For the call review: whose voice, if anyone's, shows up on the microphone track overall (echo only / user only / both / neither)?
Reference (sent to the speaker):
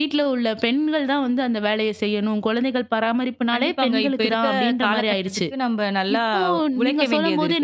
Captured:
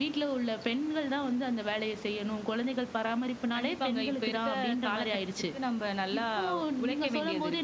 echo only